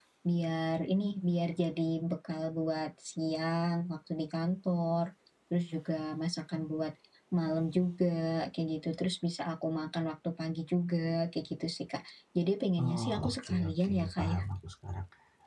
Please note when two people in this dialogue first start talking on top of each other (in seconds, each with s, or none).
12.8 s